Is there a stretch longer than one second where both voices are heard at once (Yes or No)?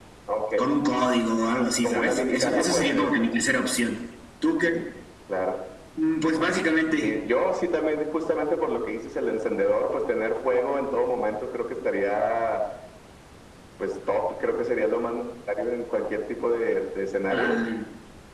Yes